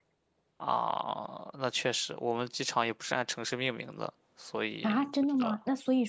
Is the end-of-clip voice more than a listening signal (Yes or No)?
Yes